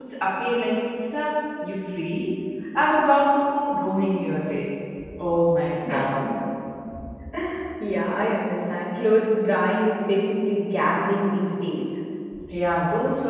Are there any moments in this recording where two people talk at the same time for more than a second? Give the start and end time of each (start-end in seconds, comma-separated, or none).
none